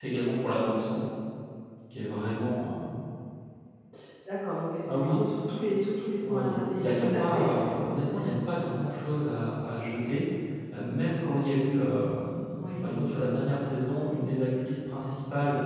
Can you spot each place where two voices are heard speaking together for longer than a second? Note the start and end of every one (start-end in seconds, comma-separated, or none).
6.3-8.3